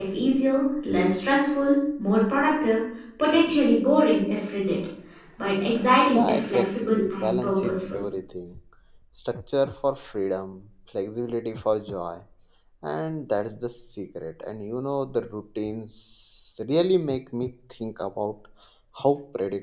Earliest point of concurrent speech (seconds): 6.1 s

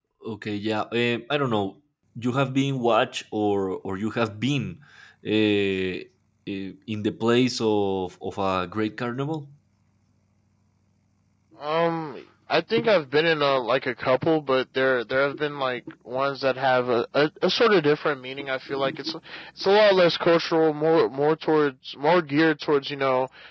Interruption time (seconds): none

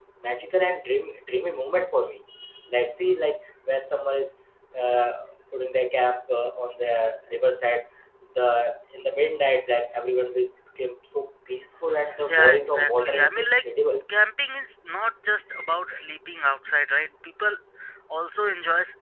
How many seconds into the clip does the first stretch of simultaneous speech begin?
12.3 s

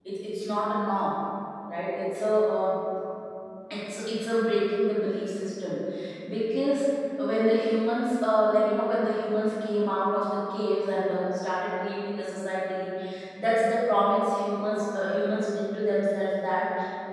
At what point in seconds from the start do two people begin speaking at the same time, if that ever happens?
none

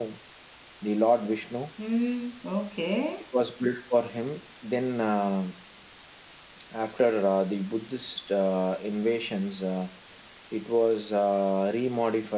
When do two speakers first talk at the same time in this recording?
none

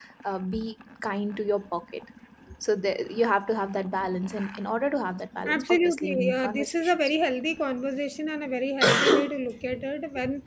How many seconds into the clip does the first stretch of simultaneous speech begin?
5.5 s

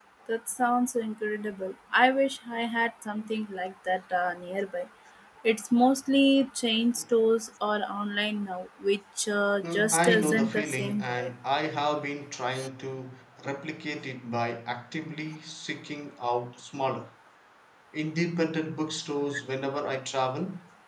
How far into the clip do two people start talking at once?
9.6 s

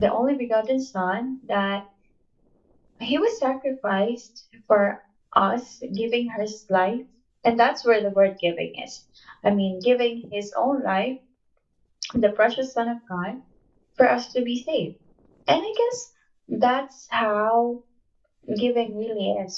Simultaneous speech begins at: none

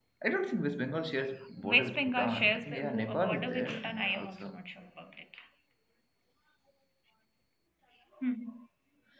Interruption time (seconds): 1.6 s

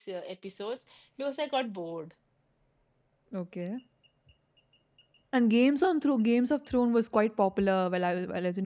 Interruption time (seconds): none

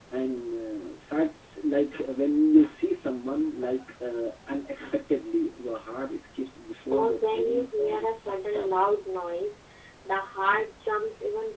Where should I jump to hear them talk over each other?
6.9 s

